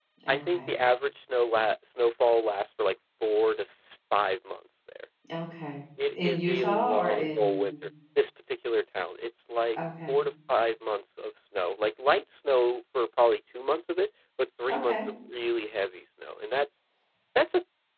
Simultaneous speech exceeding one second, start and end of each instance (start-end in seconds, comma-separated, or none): 6.2-7.7